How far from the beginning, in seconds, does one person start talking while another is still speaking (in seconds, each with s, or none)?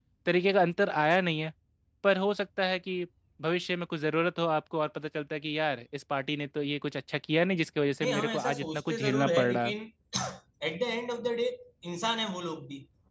8.0 s